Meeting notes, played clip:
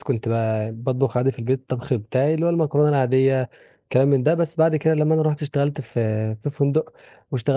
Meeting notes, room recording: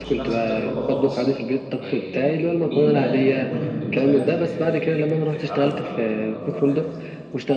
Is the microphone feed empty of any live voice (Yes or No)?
No